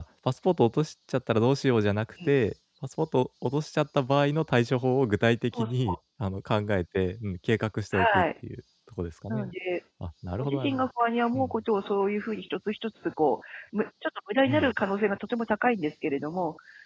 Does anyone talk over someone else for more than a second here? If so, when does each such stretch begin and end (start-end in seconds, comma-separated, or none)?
none